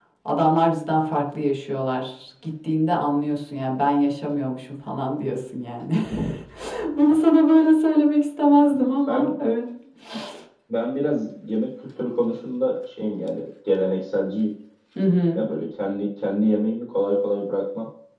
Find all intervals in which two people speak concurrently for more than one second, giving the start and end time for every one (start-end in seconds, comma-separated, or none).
none